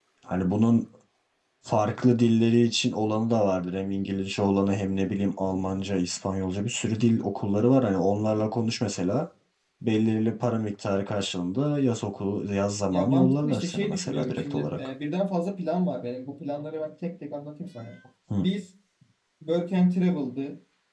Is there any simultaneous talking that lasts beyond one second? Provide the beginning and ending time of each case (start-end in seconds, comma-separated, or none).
12.9-14.8